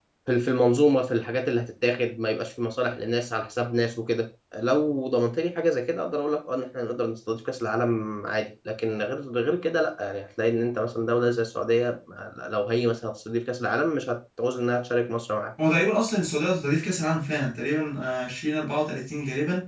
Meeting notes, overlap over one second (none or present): none